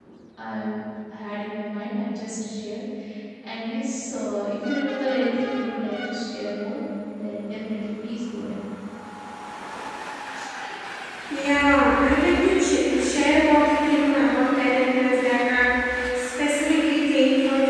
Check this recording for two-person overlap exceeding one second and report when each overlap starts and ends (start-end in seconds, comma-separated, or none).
none